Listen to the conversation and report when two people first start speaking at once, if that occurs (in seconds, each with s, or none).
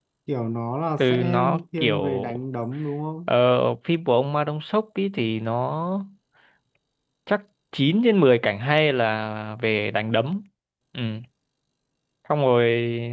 1.0 s